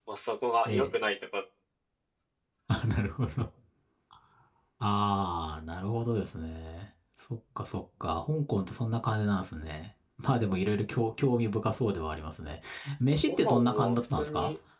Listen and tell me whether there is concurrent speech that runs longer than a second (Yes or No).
Yes